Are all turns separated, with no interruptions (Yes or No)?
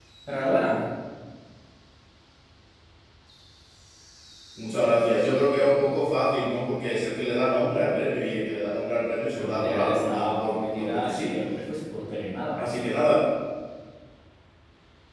No